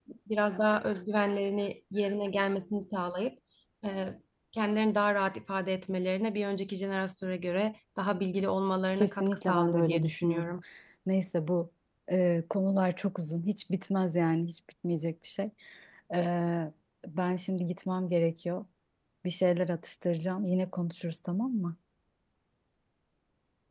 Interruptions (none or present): present